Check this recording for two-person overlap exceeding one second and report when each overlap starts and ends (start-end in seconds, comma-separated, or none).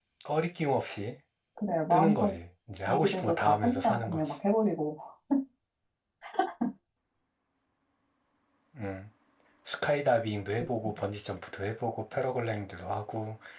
2.9-4.3